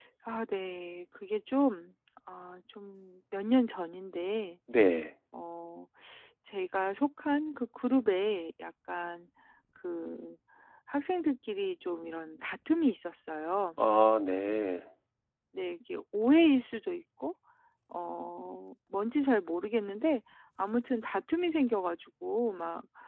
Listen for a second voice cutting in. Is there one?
No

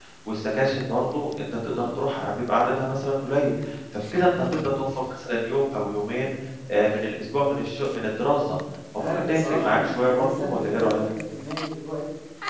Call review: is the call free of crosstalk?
No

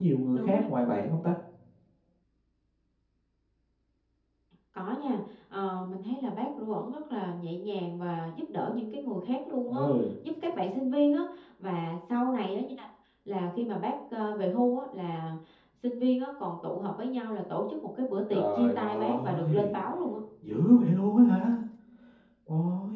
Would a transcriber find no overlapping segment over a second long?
No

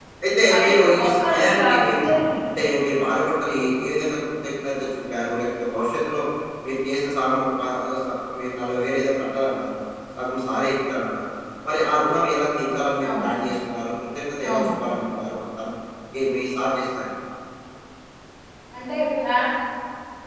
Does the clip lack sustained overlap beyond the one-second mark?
No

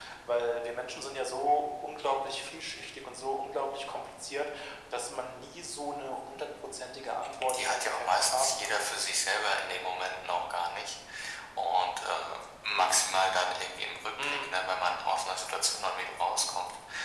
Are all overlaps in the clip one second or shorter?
No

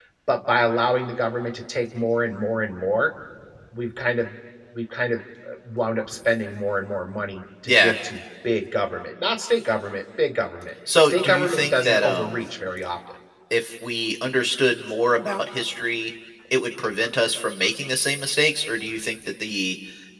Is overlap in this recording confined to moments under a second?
No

